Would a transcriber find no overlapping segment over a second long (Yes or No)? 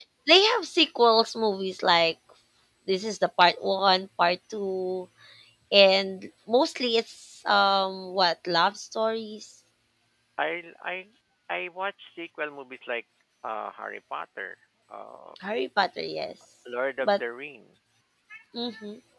Yes